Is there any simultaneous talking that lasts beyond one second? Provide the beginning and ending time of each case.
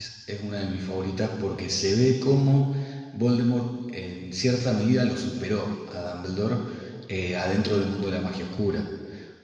none

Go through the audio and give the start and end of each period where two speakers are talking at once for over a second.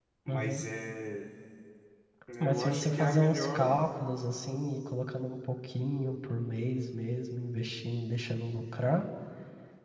2.4-3.8

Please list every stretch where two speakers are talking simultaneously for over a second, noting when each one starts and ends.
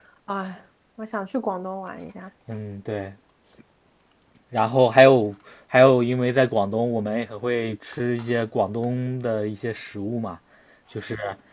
none

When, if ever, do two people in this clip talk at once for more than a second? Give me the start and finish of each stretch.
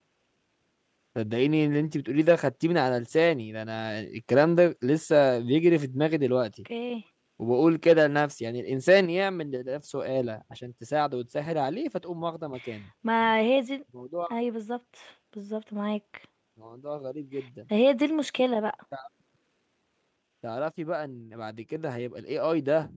none

